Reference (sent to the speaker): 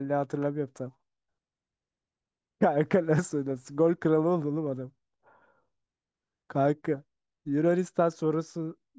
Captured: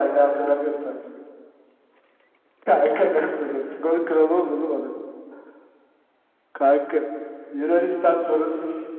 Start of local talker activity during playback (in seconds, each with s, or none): none